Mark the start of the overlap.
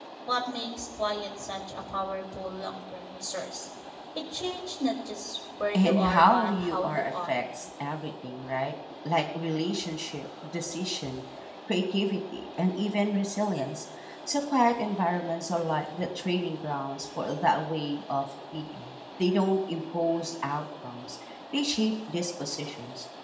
5.7 s

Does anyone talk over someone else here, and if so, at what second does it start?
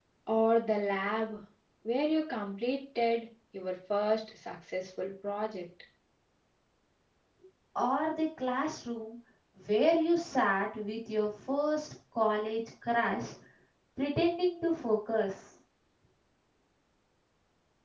none

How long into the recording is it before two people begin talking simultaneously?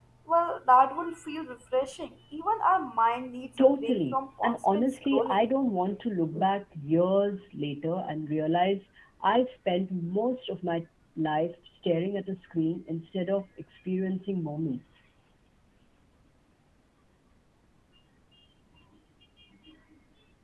3.6 s

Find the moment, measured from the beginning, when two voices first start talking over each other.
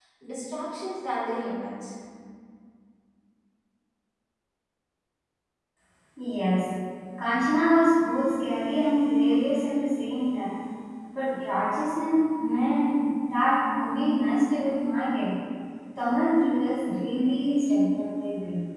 none

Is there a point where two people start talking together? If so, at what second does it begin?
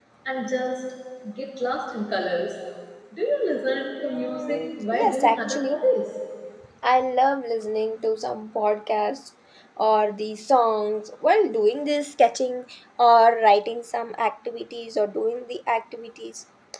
4.0 s

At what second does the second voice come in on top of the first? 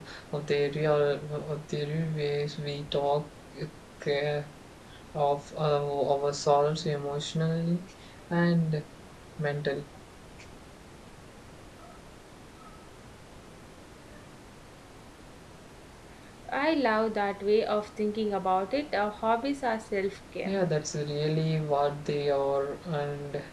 none

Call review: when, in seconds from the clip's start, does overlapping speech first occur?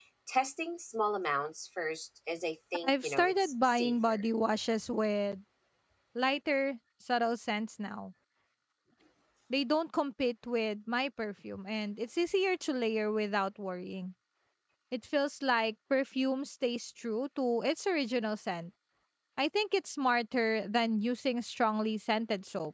2.8 s

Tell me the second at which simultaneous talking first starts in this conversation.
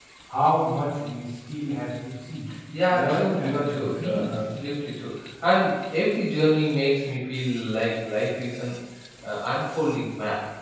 2.9 s

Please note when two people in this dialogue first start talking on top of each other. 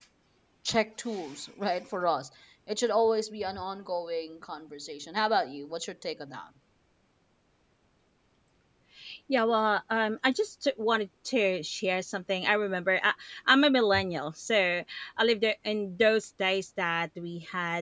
none

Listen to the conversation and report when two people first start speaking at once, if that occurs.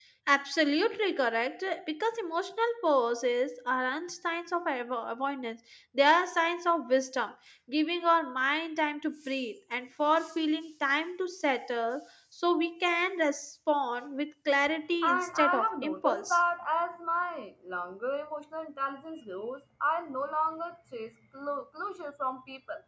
15.0 s

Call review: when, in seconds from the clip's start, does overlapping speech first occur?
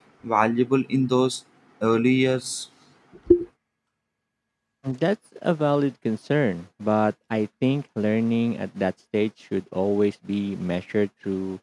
none

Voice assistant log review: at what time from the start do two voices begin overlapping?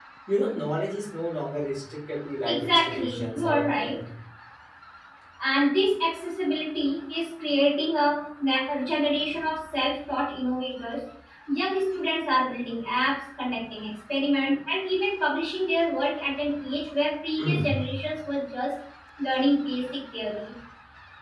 2.5 s

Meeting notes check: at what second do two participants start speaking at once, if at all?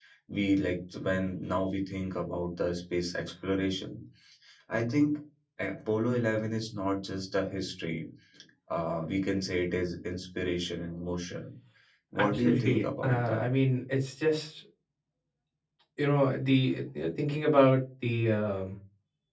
12.2 s

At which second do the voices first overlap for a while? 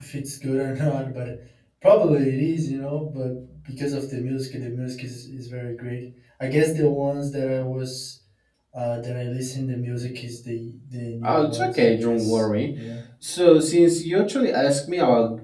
11.2 s

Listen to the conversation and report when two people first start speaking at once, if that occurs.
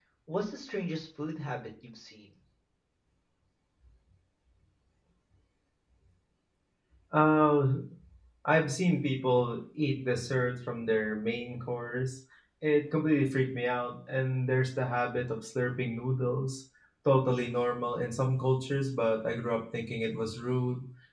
none

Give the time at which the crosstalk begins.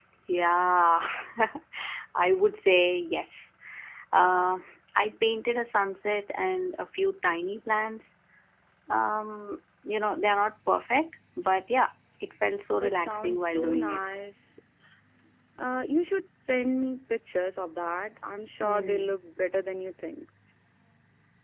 12.7 s

